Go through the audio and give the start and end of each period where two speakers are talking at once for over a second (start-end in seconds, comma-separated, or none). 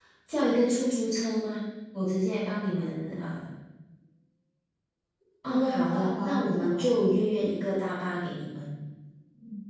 5.5-6.8